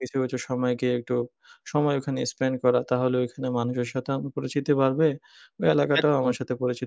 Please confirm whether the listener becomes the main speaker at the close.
No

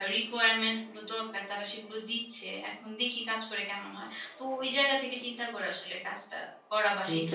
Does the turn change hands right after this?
Yes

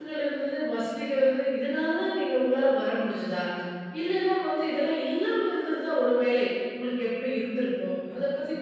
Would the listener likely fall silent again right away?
Yes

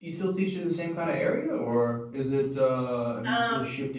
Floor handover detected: No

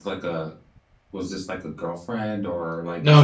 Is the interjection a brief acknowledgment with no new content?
No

